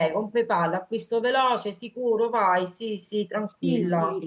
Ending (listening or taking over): taking over